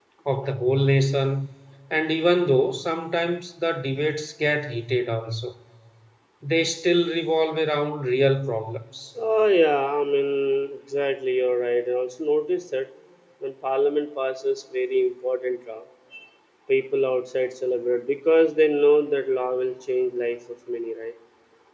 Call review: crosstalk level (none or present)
none